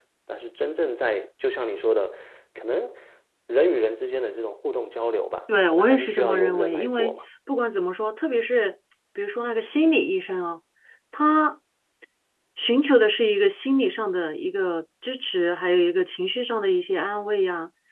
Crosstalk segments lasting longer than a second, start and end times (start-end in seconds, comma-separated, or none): 5.7-7.2